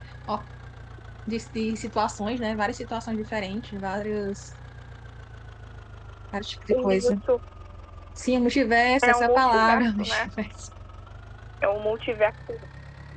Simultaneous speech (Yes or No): Yes